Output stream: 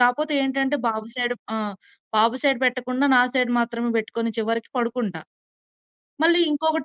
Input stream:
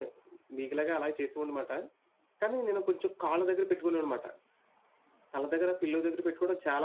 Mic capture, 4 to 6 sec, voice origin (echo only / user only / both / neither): user only